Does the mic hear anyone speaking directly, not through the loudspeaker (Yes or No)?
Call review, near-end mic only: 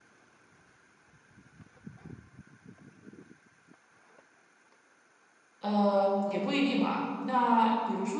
Yes